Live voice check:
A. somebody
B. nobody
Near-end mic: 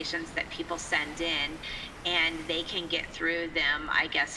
B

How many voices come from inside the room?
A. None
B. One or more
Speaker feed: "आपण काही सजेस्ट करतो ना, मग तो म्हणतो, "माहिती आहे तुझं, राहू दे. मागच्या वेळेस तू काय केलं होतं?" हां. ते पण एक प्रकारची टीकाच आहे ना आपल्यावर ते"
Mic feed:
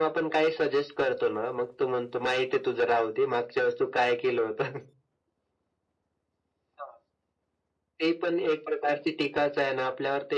A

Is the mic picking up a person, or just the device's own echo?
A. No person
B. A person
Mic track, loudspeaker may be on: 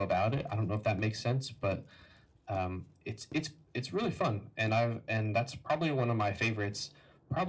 A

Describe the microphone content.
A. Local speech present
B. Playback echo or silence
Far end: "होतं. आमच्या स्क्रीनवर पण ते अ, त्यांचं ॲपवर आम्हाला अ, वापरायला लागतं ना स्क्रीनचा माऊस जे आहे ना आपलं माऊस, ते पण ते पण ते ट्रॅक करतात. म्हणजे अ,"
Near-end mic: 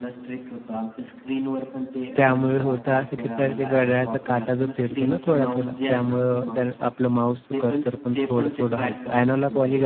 A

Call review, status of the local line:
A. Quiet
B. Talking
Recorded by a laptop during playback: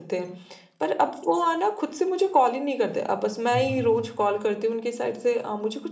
B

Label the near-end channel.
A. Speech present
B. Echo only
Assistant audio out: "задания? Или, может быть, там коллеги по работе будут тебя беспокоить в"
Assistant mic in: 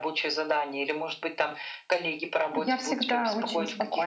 A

